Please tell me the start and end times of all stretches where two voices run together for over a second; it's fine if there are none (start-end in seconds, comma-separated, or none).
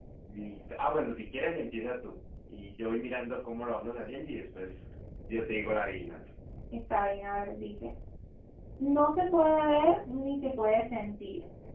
none